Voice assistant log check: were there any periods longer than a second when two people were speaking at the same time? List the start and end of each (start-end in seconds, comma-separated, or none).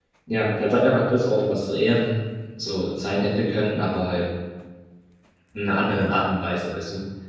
none